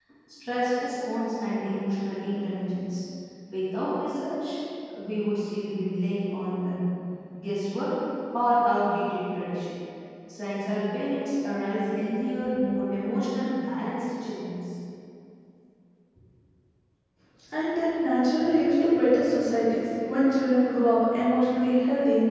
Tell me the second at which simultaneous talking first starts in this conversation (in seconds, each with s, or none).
none